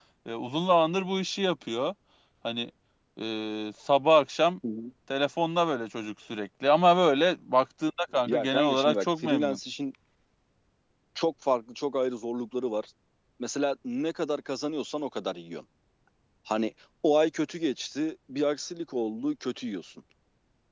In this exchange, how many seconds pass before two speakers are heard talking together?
8.3 s

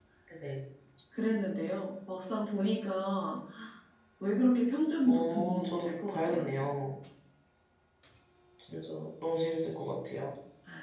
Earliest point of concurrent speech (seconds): 5.0 s

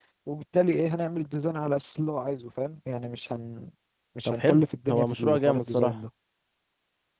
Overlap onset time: 4.2 s

